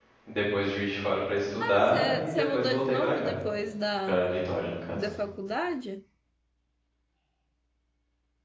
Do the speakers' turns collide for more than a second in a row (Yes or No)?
Yes